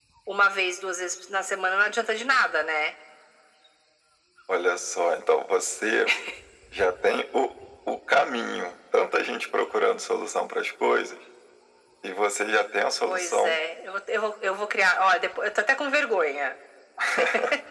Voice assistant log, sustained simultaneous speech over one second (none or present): none